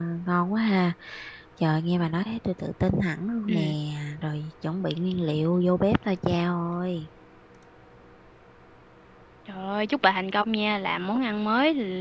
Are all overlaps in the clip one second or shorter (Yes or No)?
Yes